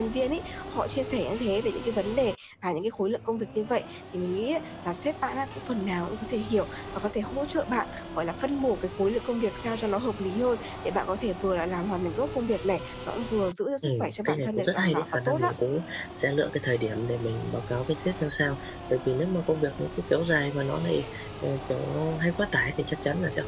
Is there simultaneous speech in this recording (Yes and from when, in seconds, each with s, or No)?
Yes, from 13.8 s